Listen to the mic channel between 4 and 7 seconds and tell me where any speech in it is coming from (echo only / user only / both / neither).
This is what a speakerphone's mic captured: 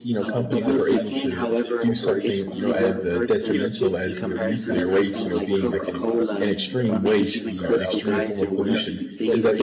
both